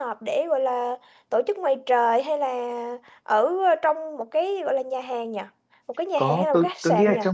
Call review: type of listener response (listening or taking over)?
taking over